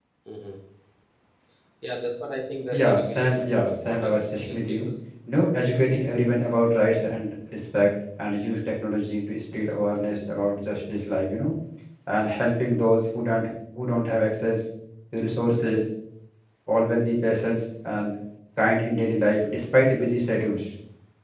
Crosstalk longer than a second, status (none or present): present